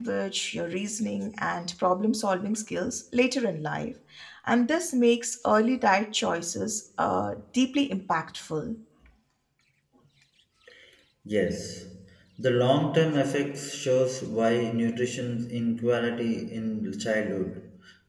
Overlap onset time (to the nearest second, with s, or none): none